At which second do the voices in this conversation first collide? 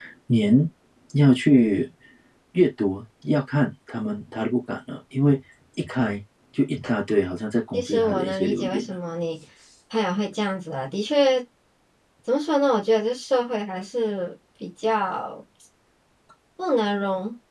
7.7 s

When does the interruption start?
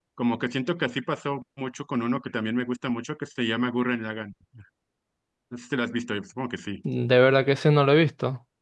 none

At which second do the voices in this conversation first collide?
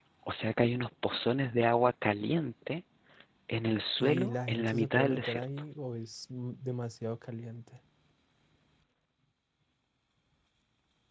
4.0 s

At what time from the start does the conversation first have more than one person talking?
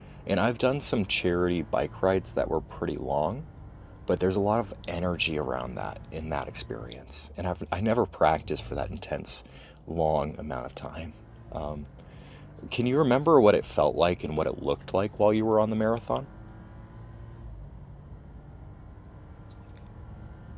none

